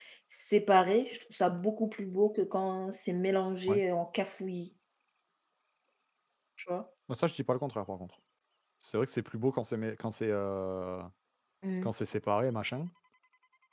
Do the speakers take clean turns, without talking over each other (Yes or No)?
Yes